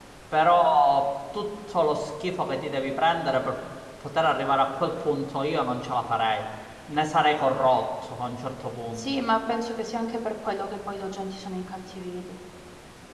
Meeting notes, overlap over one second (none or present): none